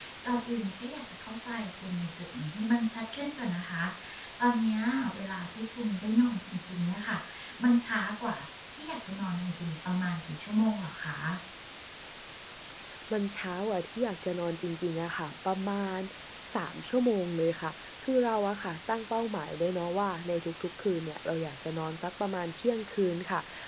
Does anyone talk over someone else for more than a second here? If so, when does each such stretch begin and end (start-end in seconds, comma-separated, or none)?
none